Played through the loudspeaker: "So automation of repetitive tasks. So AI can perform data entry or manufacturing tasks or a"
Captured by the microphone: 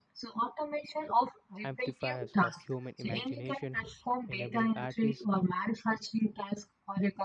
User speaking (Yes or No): Yes